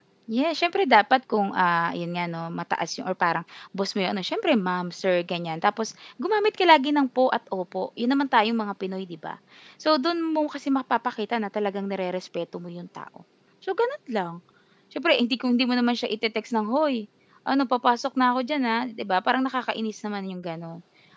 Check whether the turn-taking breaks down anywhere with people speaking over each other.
No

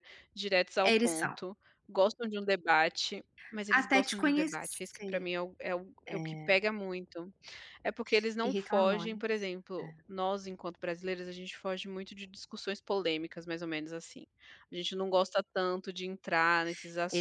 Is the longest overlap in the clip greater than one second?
Yes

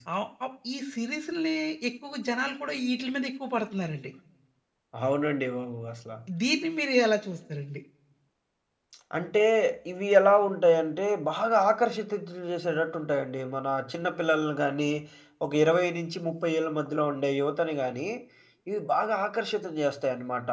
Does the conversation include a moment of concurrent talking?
No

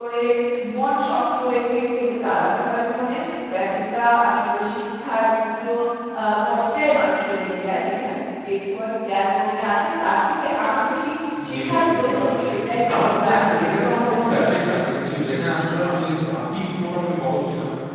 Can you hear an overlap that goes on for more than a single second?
Yes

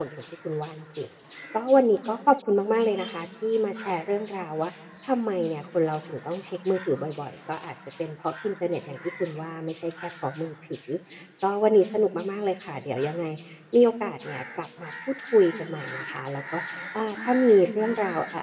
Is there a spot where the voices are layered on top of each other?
No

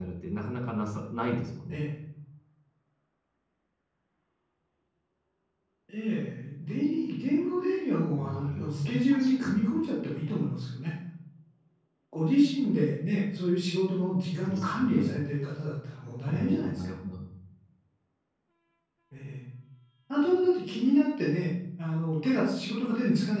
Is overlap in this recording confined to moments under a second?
No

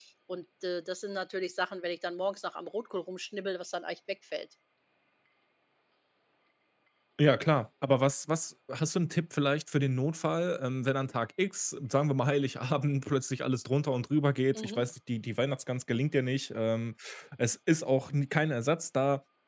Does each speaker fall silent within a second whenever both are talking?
Yes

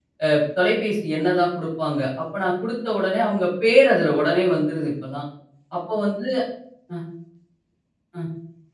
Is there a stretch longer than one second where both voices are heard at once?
No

